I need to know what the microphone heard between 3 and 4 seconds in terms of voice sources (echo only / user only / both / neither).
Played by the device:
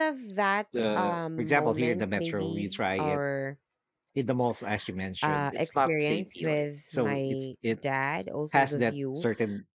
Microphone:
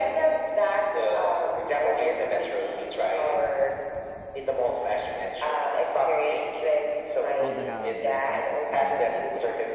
echo only